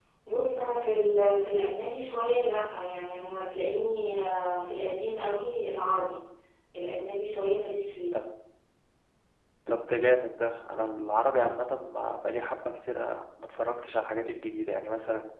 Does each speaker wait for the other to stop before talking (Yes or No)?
Yes